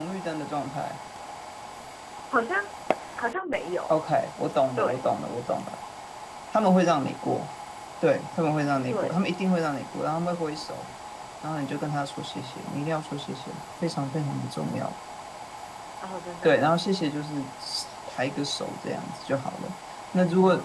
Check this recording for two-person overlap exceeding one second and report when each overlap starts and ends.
none

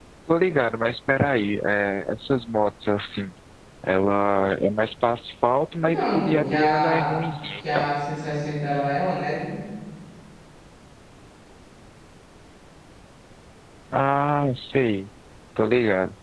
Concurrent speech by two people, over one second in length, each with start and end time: 5.8-7.1

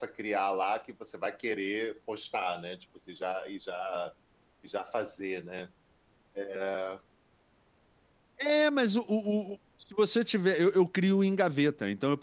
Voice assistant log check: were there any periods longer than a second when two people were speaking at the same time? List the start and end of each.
none

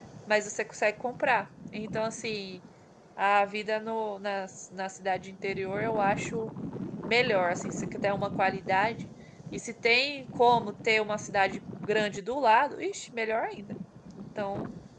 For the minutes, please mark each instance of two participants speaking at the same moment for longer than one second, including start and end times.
none

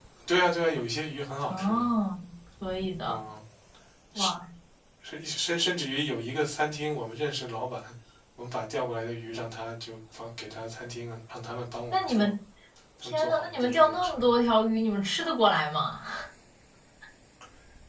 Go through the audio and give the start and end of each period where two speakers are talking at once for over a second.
13.0-14.2

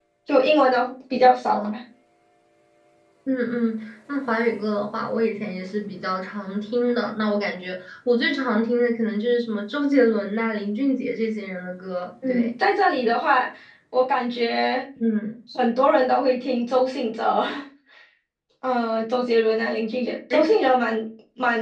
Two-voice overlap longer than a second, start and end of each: none

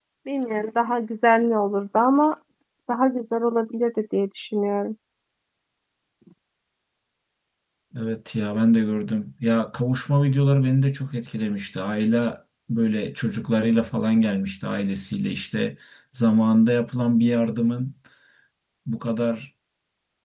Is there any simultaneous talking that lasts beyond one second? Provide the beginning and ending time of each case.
none

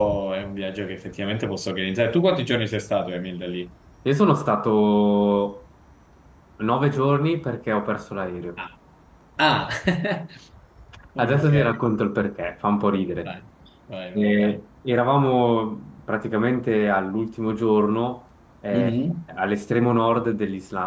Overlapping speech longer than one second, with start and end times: none

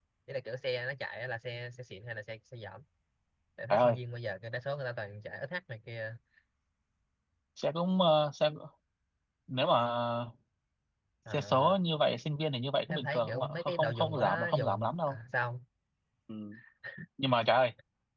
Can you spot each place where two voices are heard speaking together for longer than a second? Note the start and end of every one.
12.9-15.2

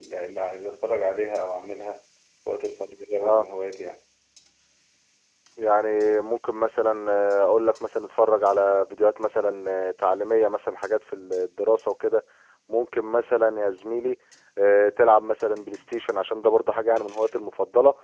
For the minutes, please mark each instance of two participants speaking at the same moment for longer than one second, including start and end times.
none

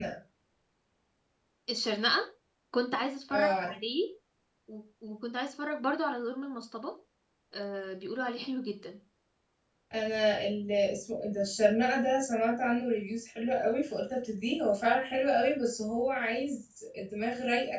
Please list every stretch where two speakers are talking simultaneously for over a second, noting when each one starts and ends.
none

